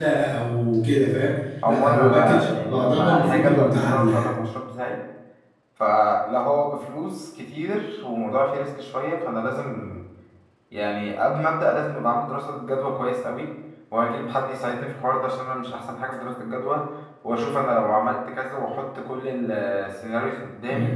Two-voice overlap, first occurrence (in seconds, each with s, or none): 1.6 s